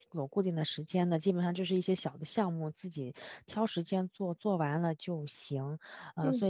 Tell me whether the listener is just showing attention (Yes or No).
Yes